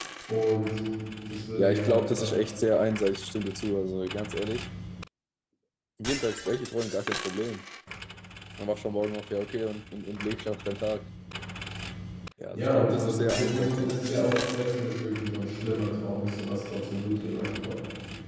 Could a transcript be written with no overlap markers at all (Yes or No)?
No